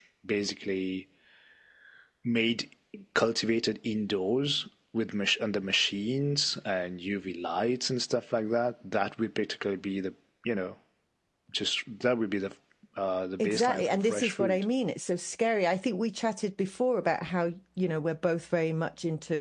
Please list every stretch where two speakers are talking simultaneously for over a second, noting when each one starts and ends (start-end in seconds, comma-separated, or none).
13.4-14.7